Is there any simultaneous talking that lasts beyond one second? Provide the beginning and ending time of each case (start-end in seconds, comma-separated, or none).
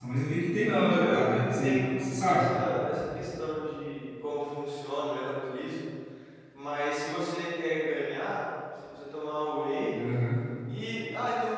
0.5-2.5